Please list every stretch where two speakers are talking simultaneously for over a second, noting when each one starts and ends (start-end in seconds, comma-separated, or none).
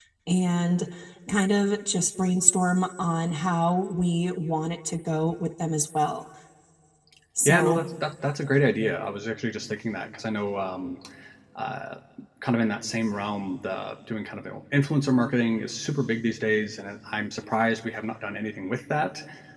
none